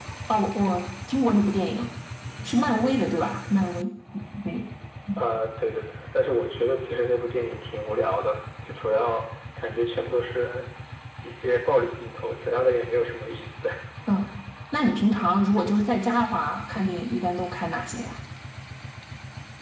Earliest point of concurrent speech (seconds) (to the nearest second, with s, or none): none